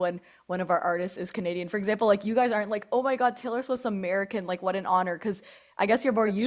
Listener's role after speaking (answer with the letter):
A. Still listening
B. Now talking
A